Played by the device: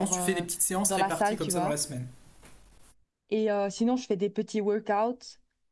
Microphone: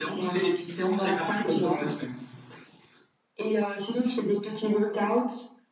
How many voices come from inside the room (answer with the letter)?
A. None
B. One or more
A